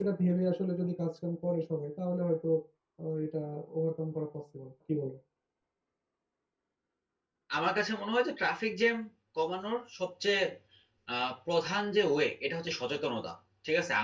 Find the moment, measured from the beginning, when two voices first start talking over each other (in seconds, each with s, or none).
none